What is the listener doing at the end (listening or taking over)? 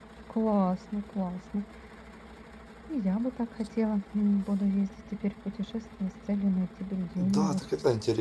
taking over